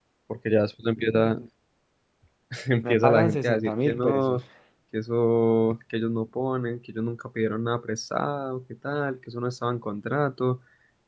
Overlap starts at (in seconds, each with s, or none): 2.9 s